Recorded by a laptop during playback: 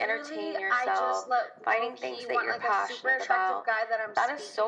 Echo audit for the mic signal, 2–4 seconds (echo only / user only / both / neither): echo only